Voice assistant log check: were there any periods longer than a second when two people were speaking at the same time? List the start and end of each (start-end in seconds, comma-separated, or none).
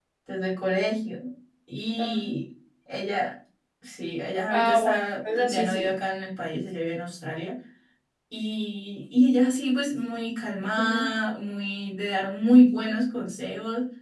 4.5-5.9